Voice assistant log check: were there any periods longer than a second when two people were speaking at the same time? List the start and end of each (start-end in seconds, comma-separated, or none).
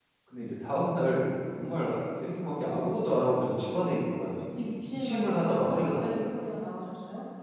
4.8-6.3